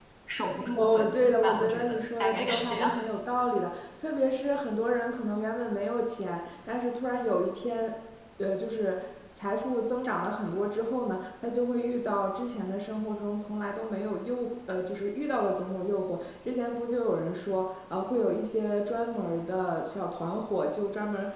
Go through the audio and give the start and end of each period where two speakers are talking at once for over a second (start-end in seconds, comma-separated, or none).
0.8-3.0